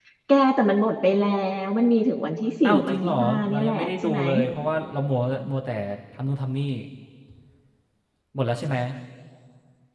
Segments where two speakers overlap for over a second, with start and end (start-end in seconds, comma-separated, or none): 2.7-4.2